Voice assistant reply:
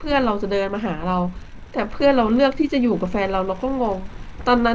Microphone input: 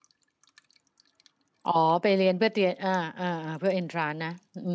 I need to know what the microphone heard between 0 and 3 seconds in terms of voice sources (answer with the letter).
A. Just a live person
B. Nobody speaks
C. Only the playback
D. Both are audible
A